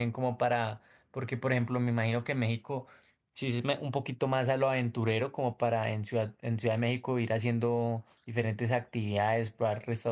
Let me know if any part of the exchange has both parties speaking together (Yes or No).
No